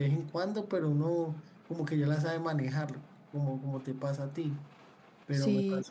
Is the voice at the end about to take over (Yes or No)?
No